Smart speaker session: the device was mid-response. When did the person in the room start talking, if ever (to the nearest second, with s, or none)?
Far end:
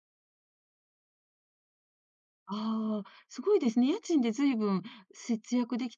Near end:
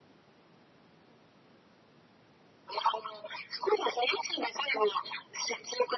none